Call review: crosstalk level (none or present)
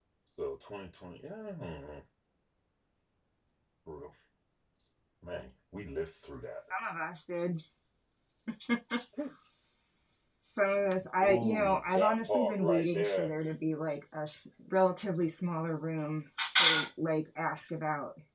present